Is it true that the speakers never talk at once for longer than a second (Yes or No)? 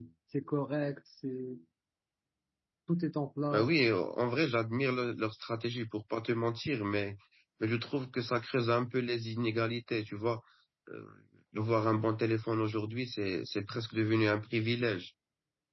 Yes